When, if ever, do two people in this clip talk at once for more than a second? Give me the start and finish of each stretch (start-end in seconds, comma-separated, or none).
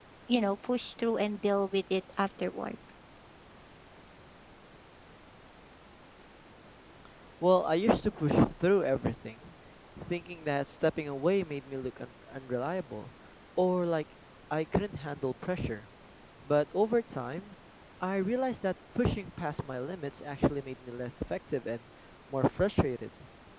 none